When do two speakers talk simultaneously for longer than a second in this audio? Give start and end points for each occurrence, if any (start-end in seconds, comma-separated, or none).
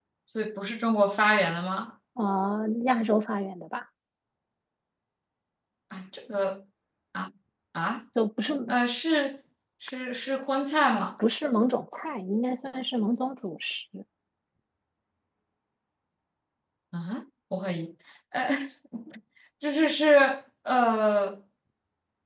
none